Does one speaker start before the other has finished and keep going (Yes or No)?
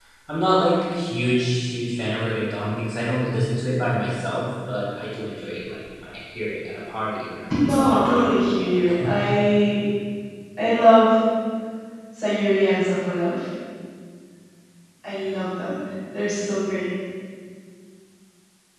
Yes